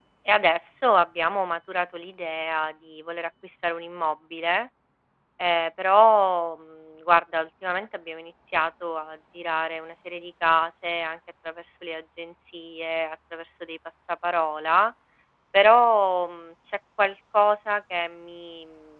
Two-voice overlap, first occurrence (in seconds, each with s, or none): none